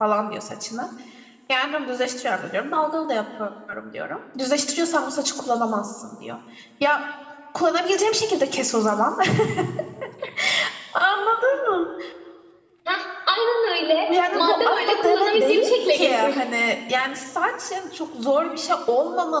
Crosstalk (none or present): present